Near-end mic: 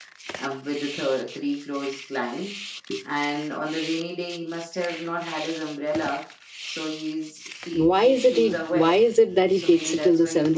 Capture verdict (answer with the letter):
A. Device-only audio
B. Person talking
B